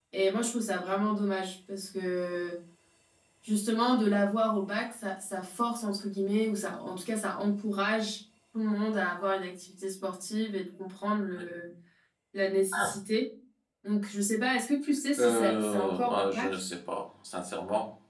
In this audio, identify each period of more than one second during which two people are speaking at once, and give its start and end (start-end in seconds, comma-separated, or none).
15.2-16.6